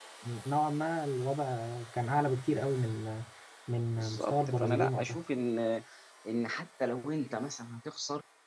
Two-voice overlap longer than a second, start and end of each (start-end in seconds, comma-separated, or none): 3.9-5.2